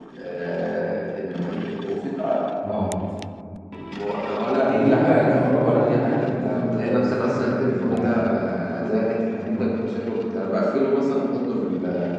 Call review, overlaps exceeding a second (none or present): present